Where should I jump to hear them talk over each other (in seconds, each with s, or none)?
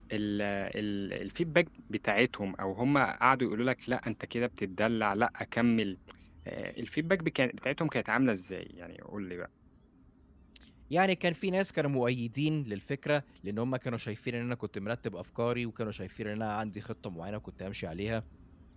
none